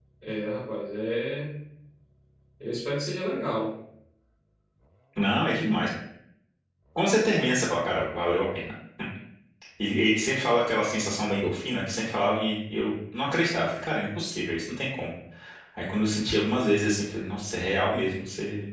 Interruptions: none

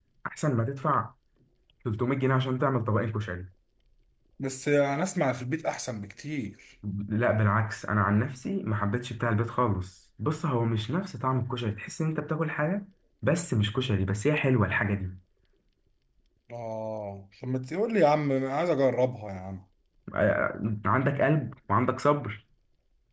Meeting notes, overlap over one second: none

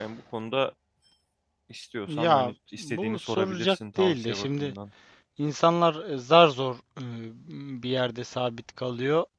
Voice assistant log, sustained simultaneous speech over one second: present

